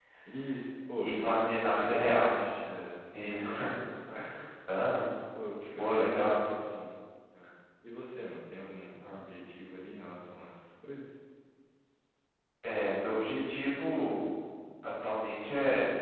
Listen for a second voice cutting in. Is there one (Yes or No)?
Yes